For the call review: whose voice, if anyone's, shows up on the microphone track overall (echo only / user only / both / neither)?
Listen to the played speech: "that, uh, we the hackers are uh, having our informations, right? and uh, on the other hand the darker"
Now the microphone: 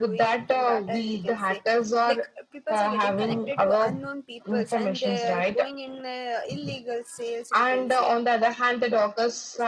both